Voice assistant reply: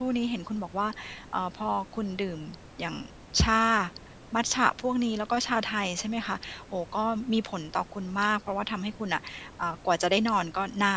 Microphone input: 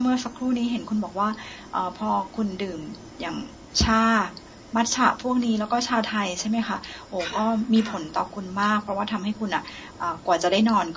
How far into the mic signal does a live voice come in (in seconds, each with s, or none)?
7.2 s